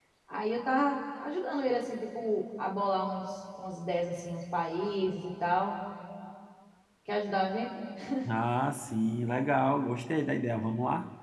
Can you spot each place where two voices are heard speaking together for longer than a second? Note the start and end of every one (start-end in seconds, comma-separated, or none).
none